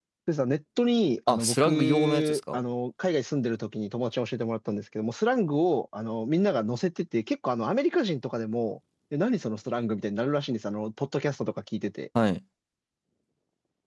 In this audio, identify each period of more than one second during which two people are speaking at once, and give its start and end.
1.3-2.6

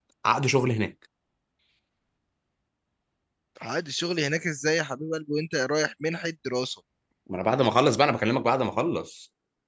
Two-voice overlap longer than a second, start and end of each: none

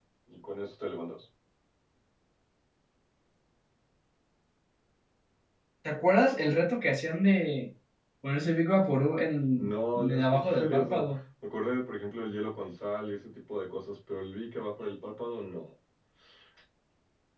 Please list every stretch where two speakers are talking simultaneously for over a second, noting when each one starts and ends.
9.5-11.0

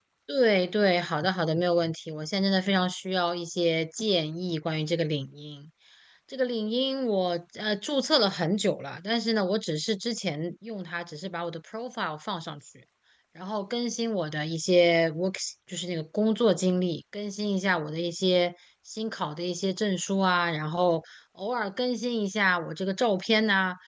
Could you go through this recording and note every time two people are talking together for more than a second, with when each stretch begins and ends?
none

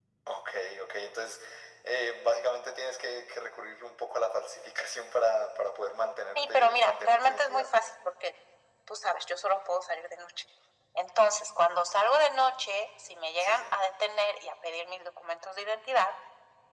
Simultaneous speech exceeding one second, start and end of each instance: 6.3-7.7

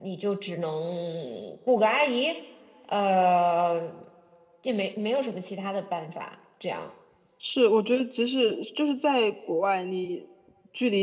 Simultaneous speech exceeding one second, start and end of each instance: none

